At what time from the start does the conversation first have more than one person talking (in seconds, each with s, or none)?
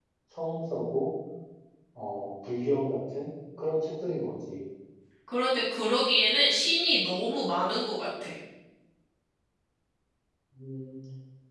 none